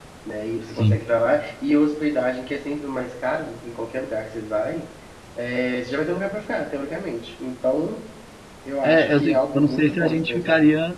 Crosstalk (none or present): present